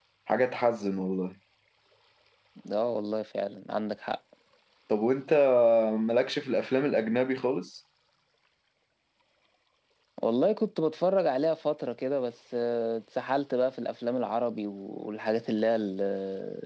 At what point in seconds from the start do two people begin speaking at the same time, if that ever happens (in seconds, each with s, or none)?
none